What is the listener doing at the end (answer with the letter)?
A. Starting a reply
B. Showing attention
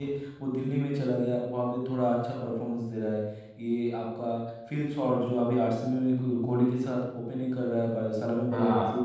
B